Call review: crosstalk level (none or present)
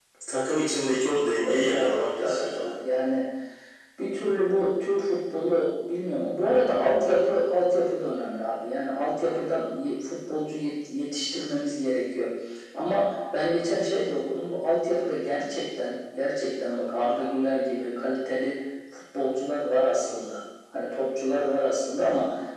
present